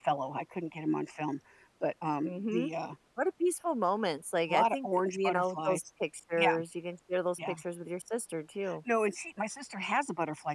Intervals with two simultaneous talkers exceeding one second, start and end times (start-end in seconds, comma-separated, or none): 4.5-5.8